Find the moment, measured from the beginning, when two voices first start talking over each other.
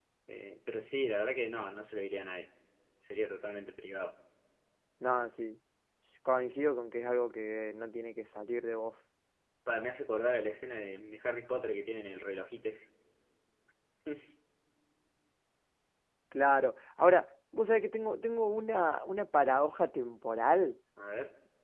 none

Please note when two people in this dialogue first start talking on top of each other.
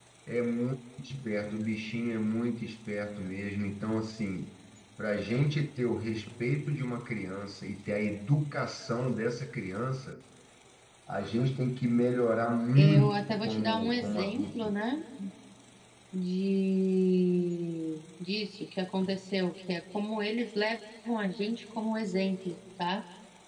13 s

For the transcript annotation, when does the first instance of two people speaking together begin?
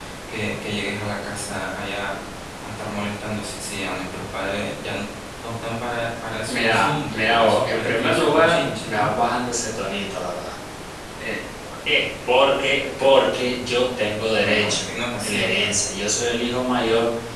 6 s

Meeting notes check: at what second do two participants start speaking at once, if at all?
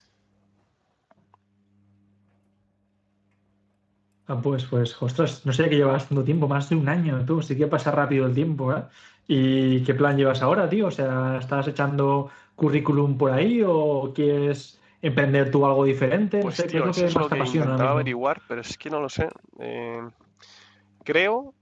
16 s

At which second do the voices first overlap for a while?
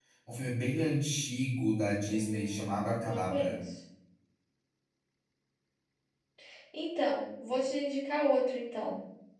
2 s

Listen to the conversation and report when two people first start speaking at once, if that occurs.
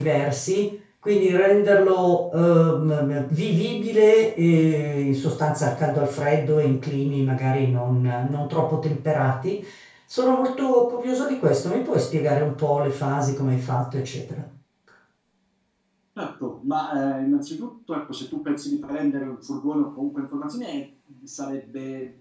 none

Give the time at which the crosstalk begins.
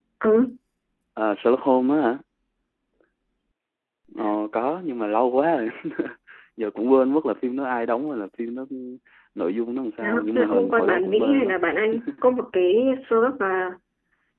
10 s

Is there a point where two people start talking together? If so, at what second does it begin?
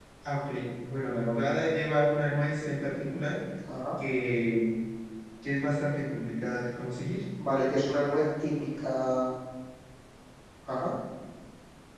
none

